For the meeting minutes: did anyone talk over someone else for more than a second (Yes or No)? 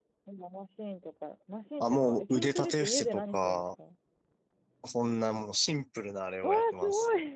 Yes